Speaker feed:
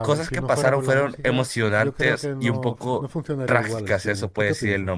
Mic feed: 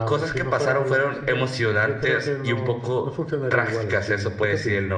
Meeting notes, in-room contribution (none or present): none